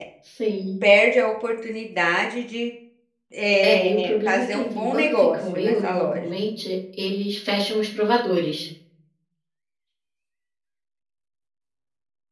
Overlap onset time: 3.7 s

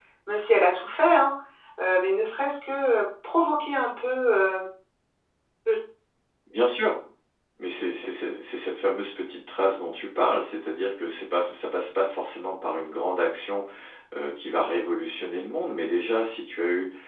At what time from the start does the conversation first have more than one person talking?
none

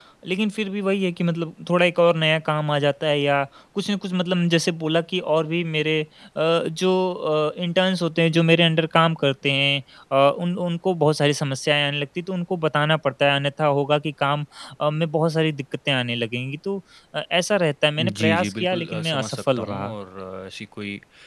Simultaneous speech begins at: 18.0 s

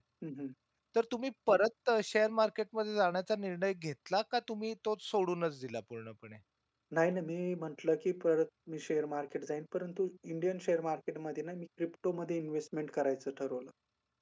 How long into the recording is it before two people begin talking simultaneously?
none

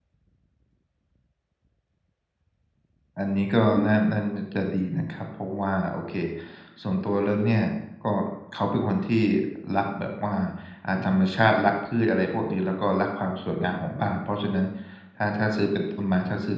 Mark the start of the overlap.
none

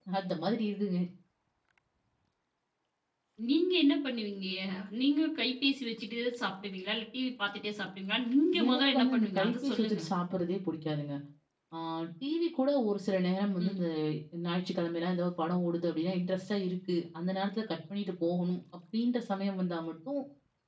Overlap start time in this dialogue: 8.5 s

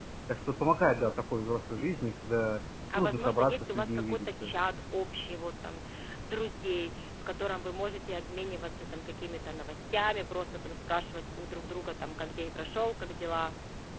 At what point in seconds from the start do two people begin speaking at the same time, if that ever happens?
2.9 s

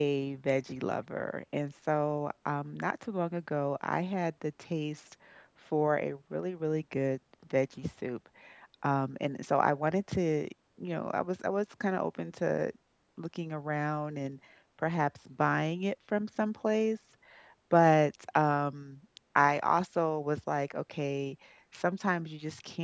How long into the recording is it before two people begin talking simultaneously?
none

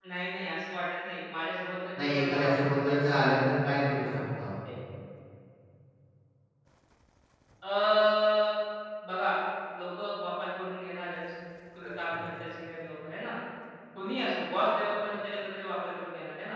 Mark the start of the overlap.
2.0 s

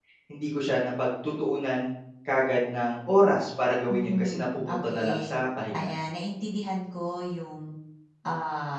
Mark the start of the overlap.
3.9 s

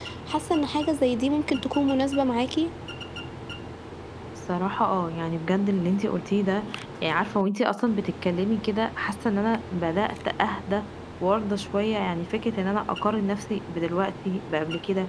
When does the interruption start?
none

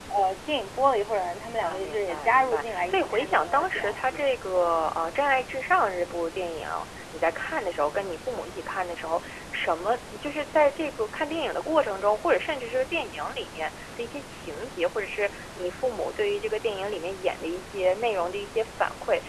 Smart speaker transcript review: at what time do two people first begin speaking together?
1.6 s

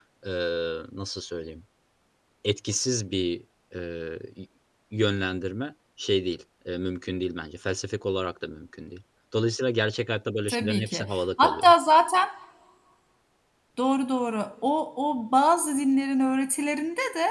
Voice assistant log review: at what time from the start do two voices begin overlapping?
10.5 s

